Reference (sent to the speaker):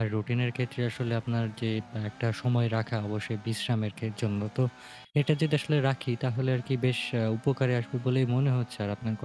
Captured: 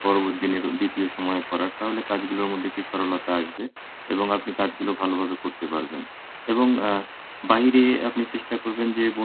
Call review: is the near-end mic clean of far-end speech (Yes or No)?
Yes